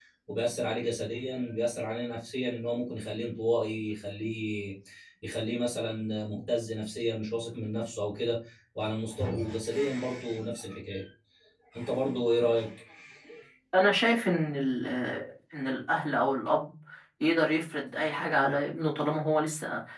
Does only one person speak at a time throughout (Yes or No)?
Yes